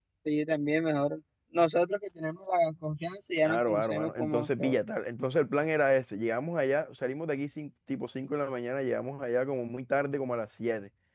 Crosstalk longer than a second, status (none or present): present